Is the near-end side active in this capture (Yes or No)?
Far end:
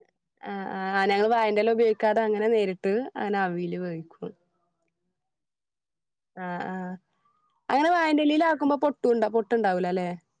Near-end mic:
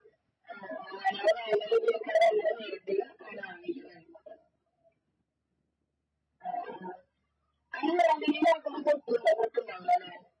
No